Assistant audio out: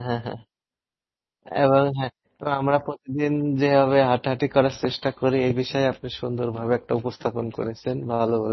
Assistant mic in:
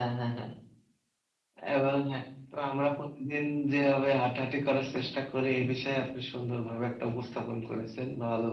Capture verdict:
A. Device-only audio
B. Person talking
A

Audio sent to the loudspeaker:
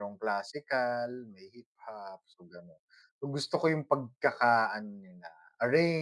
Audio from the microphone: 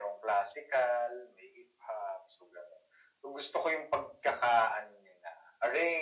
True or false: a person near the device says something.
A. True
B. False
B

